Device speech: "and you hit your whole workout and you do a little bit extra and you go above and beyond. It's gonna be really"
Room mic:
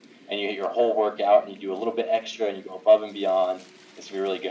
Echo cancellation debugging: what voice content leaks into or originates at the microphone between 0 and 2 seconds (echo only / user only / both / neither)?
echo only